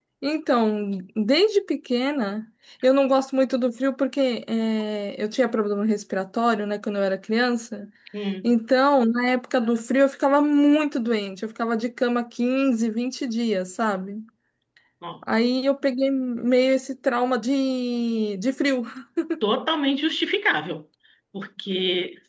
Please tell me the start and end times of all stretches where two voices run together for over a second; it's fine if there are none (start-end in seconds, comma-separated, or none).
none